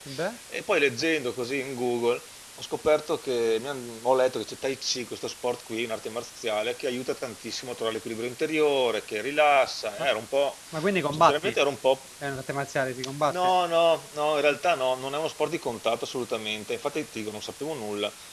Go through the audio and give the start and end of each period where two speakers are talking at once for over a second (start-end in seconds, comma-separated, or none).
none